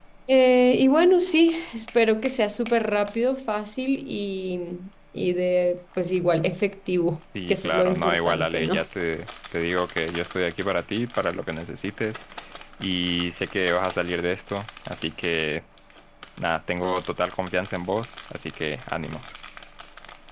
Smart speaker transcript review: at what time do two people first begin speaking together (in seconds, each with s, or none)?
7.3 s